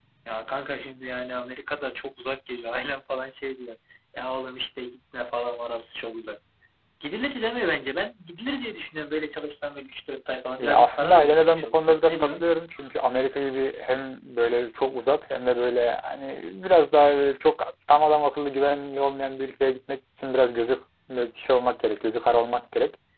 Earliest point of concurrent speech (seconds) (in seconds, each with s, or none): 10.6 s